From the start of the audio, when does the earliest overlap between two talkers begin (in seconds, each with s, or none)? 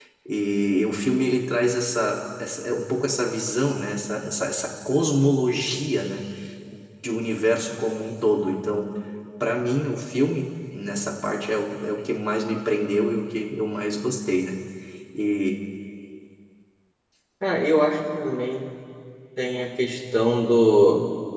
none